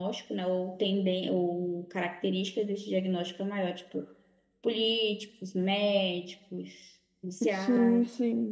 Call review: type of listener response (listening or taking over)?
taking over